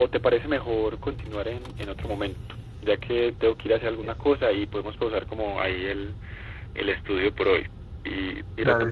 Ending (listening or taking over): taking over